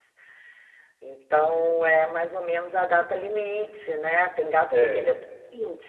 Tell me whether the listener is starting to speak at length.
No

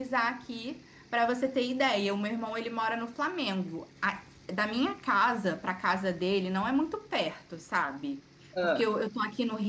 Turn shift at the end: No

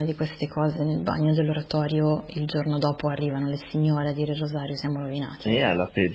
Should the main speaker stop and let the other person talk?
Yes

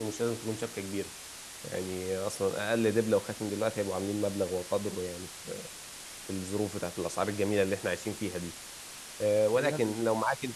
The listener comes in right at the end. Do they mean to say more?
No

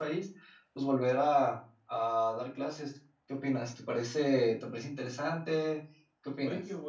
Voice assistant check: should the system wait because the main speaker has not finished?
No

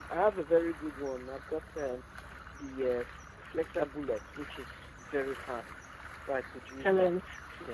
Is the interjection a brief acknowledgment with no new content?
No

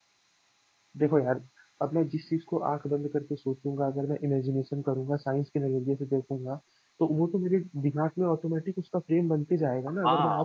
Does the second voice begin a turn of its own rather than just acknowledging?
Yes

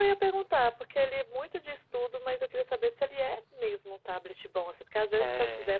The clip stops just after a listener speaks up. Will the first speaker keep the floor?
Yes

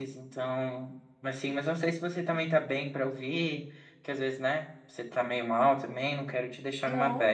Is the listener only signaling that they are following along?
No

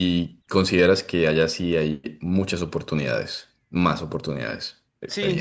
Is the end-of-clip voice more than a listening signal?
Yes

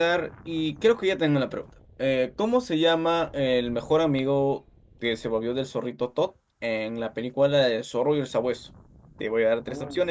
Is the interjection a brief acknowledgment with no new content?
Yes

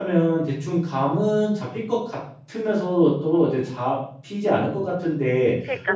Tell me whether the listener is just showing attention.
No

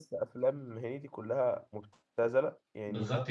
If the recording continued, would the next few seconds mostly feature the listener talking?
No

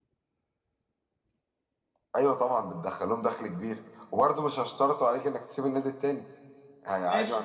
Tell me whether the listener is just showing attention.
Yes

